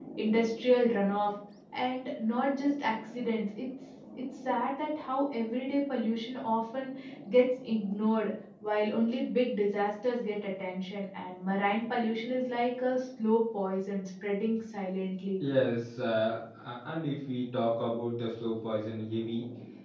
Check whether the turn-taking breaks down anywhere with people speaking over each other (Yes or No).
No